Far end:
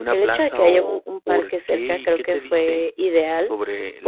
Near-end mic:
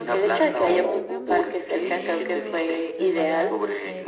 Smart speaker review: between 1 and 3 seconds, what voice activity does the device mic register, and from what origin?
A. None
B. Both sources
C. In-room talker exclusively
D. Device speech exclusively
B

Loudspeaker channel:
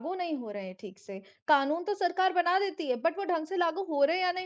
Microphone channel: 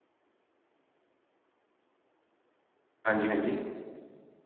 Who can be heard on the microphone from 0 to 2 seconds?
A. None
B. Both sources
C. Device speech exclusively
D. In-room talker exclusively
A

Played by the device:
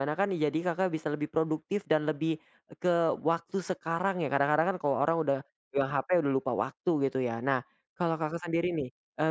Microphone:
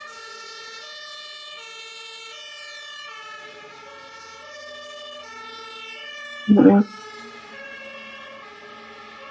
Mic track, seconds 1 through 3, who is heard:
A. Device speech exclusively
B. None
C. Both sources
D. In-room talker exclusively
B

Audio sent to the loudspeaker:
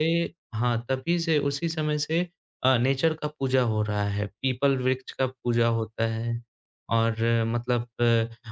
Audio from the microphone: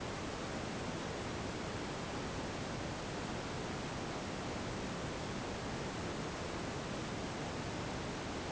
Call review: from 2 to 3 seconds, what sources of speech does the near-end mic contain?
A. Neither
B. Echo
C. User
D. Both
A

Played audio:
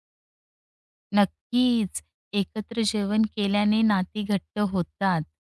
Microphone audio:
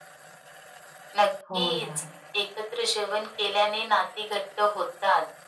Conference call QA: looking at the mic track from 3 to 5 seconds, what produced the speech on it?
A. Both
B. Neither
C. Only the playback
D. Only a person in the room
C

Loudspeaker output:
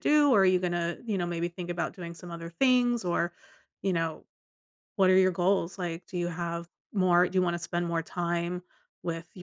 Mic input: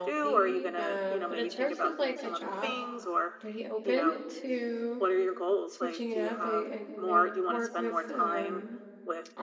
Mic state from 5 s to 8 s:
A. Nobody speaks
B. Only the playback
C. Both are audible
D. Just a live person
C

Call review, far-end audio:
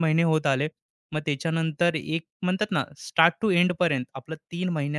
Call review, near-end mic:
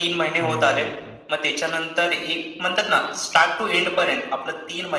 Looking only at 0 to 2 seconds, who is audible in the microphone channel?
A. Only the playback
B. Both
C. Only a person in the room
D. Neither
B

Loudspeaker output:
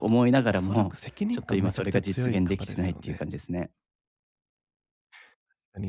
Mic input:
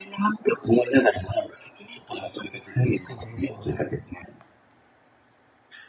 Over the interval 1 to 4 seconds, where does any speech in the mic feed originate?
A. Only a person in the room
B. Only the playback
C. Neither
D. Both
D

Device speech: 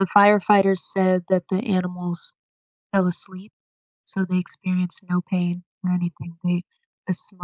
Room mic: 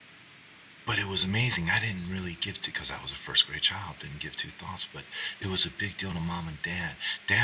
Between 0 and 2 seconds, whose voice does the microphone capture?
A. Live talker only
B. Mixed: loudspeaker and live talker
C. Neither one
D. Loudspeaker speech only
A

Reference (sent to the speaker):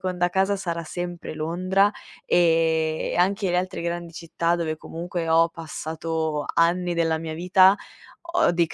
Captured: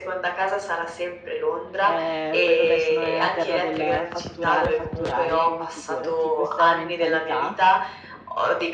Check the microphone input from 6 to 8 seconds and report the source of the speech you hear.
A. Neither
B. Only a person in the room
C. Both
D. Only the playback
C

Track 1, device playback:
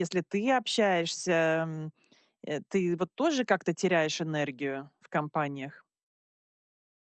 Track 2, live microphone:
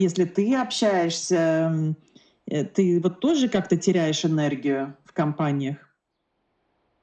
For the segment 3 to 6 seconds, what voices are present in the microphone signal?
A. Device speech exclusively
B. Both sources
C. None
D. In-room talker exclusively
A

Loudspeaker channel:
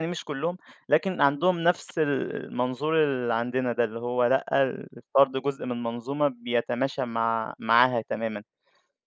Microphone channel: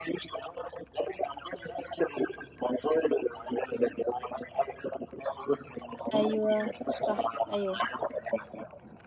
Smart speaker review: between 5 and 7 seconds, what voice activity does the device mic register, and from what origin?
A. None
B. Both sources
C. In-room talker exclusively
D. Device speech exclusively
B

